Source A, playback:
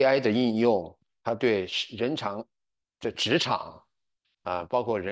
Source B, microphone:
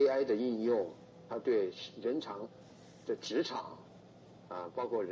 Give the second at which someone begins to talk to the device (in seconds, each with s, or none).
none